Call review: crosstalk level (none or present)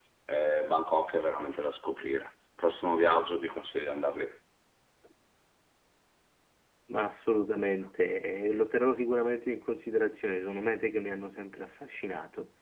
none